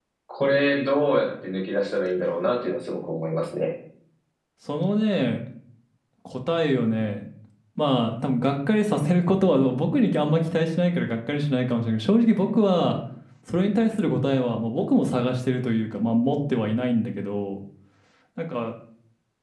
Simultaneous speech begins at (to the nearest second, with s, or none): none